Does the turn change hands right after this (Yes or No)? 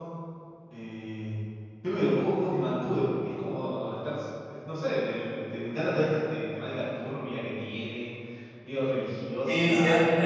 Yes